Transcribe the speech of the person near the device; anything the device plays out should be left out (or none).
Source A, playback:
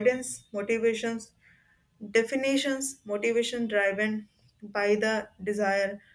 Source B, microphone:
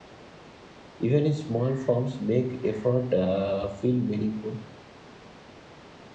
Even in small forms, make effort uh, feel meaningful.